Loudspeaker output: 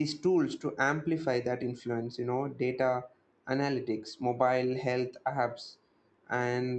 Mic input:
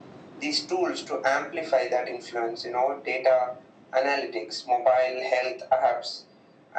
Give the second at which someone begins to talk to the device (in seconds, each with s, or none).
none